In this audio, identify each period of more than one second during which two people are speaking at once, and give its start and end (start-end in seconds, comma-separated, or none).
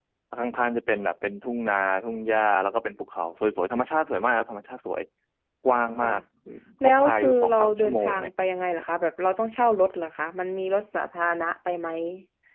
6.8-8.3